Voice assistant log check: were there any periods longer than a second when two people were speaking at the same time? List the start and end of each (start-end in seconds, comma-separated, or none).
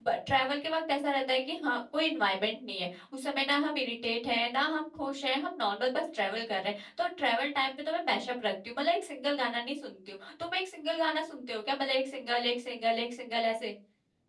none